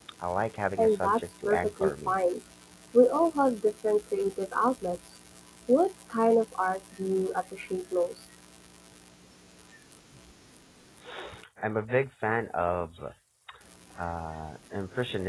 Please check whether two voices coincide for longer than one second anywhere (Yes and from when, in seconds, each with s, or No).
Yes, from 0.8 s